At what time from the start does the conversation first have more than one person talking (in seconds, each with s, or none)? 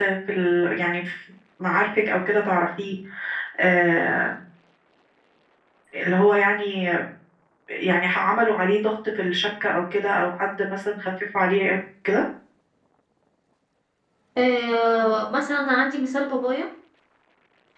none